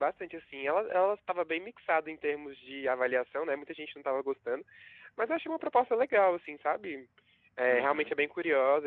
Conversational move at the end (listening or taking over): listening